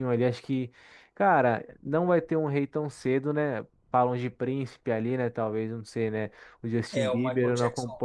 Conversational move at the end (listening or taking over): taking over